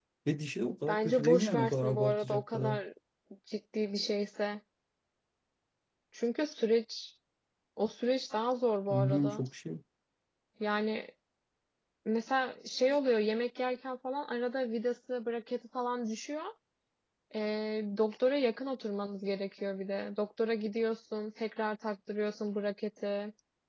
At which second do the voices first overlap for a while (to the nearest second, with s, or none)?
1 s